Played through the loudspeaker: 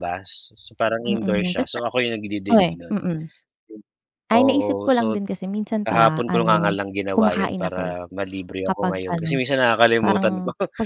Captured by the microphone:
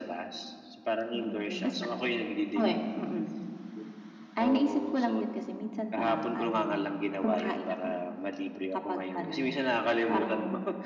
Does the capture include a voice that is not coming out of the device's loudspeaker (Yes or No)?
No